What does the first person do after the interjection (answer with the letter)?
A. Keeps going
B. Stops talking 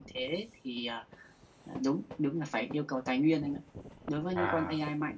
A